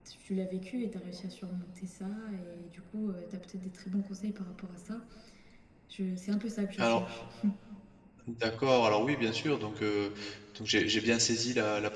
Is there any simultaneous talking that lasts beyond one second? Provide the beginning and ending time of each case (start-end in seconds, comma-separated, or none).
none